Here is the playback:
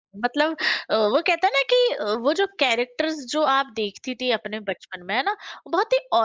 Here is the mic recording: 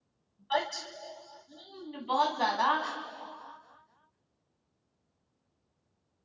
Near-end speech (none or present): present